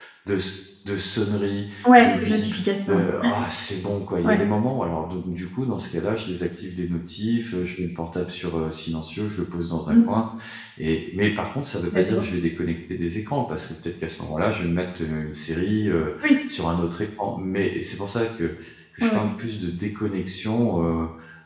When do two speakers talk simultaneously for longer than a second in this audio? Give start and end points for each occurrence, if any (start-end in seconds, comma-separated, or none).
1.8-3.0